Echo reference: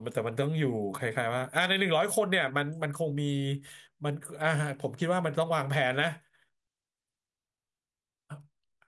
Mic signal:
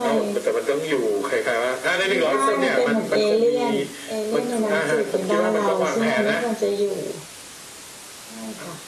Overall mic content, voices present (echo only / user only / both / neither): both